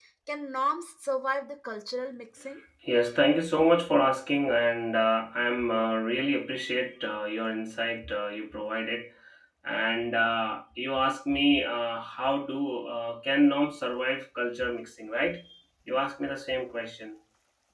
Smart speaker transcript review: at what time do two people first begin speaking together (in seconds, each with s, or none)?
none